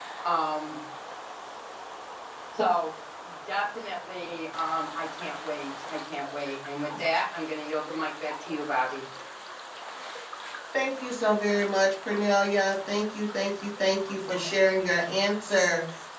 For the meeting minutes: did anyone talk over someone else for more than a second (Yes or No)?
No